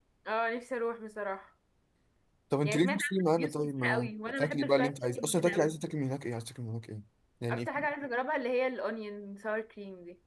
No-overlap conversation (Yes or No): No